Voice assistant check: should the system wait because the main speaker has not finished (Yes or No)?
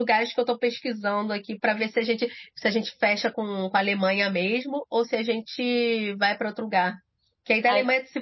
Yes